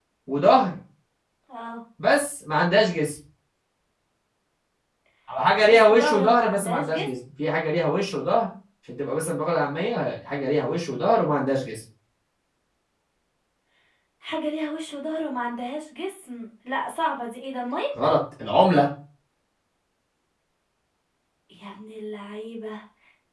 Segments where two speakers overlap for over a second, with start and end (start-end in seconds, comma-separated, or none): 5.6-7.1